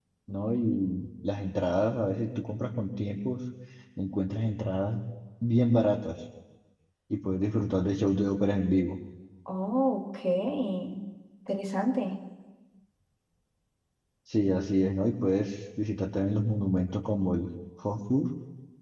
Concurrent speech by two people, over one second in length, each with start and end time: none

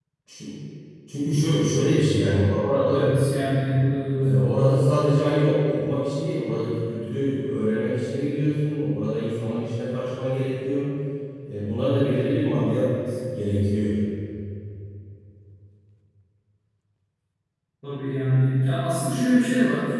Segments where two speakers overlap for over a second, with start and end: none

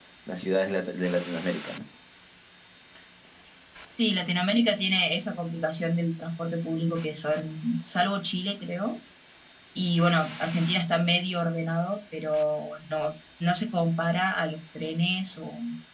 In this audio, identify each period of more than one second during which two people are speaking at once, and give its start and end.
none

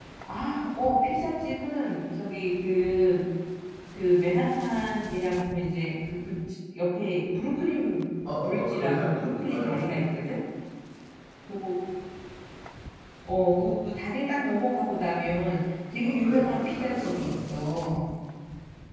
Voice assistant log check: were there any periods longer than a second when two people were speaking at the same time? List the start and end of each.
8.2-9.8, 16.0-17.5

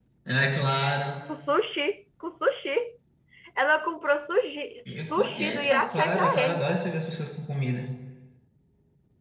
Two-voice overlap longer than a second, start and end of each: 5.0-6.6

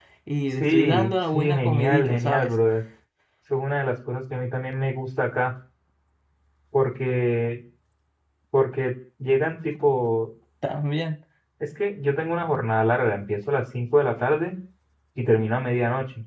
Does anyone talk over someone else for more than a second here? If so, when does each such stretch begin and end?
0.6-2.5

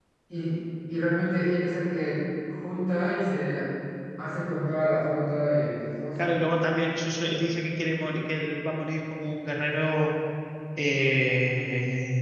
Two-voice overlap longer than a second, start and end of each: none

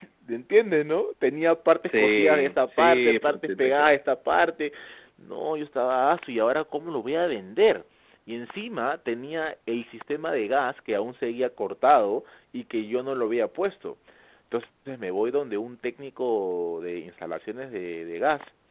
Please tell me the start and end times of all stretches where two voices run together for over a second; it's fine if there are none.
1.9-4.0

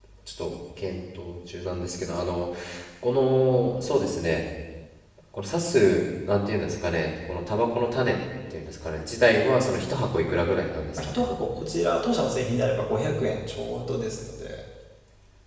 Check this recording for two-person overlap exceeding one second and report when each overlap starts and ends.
none

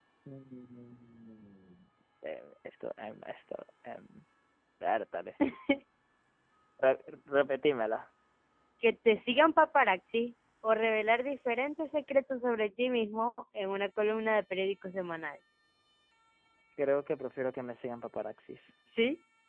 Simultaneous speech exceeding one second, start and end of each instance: none

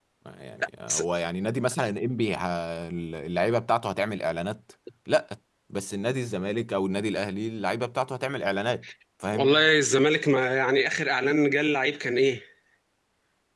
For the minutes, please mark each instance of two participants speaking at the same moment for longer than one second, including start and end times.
none

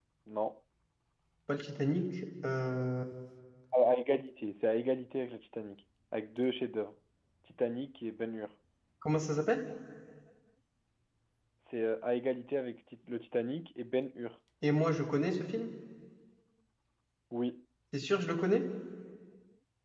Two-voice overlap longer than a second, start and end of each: none

